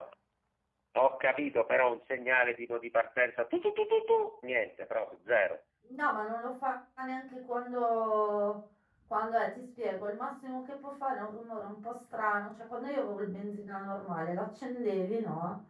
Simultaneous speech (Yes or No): No